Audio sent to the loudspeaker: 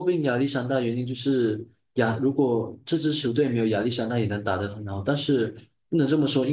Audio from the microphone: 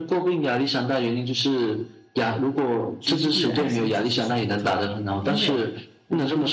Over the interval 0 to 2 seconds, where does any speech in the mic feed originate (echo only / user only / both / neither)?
echo only